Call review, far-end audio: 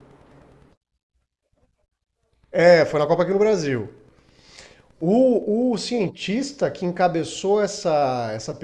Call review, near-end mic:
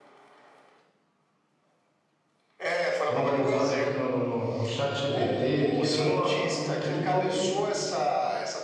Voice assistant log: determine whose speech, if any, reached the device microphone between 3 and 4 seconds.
both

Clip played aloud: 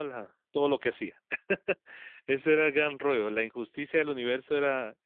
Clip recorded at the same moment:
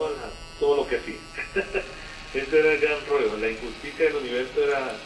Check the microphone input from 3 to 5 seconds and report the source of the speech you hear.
echo only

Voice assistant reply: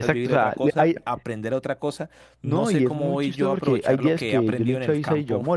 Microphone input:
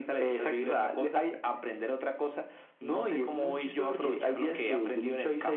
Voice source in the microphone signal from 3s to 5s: echo only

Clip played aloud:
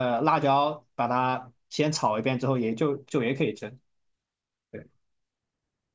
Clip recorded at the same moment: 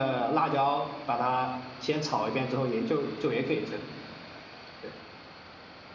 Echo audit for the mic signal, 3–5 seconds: echo only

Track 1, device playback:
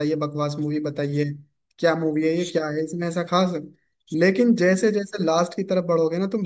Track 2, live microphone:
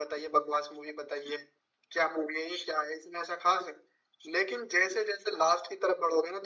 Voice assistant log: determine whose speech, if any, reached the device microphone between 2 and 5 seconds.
echo only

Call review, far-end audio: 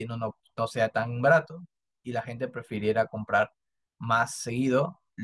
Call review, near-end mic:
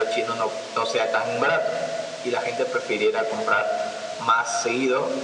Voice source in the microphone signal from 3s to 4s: echo only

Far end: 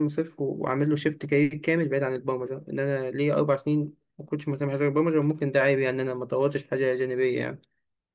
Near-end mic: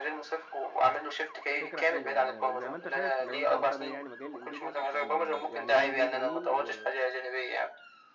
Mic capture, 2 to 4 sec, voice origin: both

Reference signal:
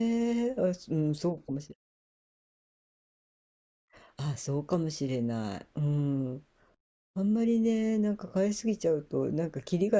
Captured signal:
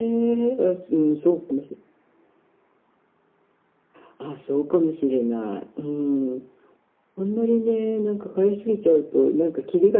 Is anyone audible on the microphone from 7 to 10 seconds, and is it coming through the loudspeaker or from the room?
echo only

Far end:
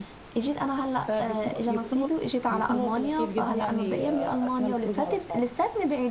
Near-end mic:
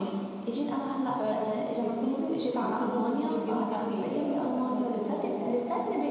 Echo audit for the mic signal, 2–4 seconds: echo only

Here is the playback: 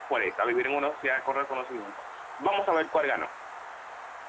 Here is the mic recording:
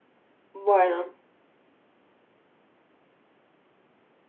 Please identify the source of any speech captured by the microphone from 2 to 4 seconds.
neither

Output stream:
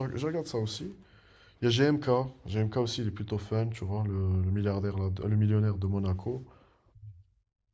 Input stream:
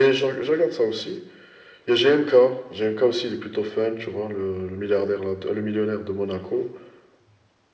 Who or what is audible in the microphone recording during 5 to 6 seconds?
echo only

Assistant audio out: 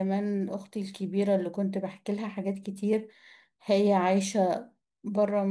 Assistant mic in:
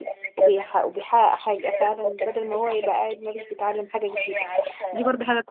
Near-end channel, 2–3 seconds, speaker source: both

